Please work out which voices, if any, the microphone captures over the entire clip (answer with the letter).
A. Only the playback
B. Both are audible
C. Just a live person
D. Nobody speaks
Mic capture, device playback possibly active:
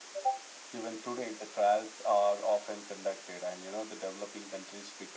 A